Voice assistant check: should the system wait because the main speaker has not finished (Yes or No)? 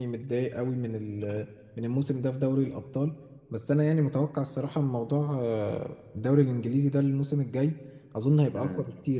Yes